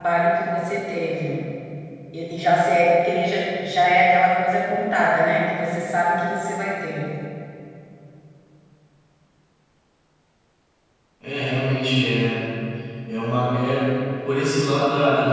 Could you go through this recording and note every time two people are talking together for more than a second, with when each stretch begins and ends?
none

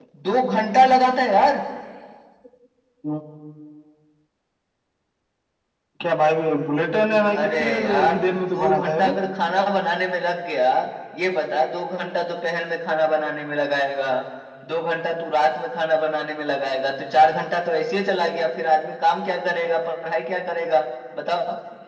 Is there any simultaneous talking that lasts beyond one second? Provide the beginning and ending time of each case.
7.3-9.1

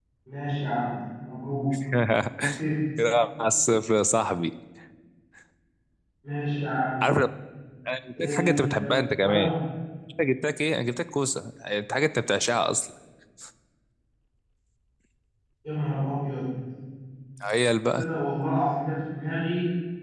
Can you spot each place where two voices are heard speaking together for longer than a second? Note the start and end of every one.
8.2-9.5

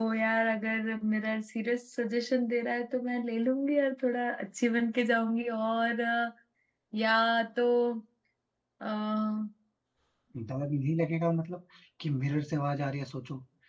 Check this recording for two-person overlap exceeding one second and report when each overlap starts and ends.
none

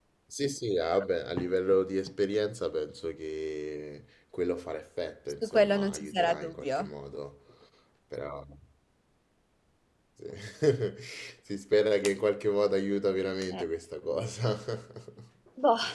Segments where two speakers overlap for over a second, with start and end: 5.4-6.9

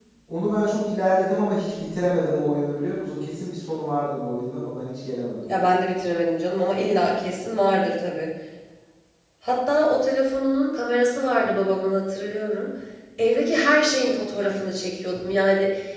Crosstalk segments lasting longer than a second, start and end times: none

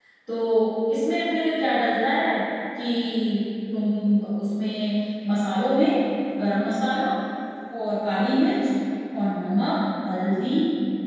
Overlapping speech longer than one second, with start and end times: none

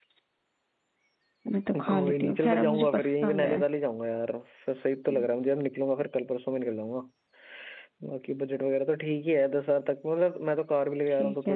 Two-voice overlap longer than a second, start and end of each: 1.9-3.6

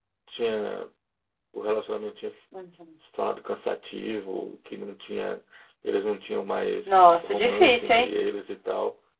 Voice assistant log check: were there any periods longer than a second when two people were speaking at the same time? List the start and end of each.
6.9-8.1

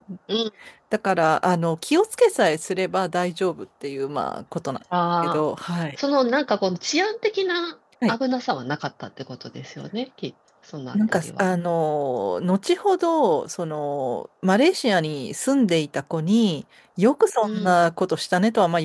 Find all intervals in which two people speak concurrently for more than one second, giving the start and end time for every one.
none

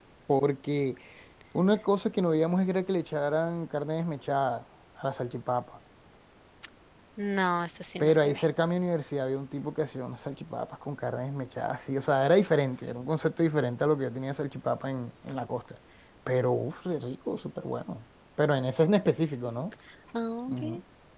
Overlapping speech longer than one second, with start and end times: none

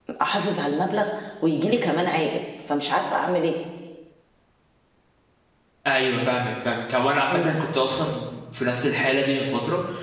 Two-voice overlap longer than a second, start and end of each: none

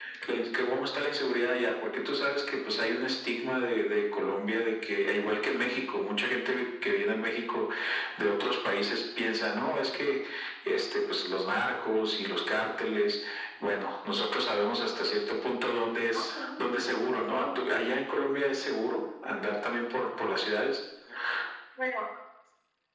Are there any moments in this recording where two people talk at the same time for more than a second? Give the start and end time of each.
16.1-17.5

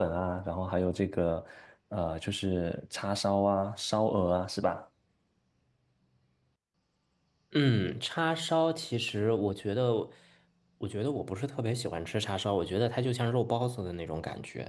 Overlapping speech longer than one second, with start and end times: none

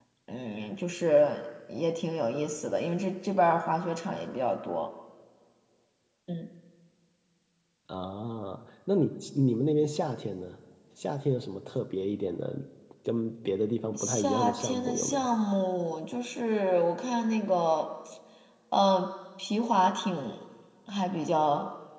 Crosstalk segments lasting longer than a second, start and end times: 13.9-15.3

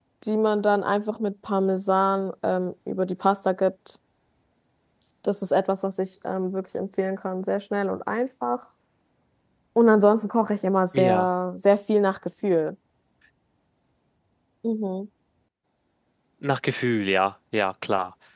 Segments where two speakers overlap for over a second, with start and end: none

